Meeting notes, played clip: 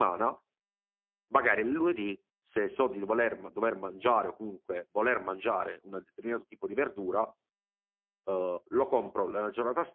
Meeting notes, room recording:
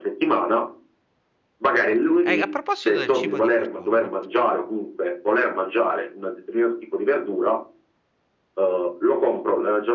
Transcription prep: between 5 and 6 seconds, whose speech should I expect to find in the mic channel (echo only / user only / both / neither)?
echo only